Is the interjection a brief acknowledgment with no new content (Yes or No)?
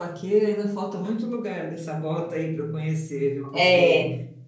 Yes